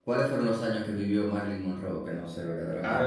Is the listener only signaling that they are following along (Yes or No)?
No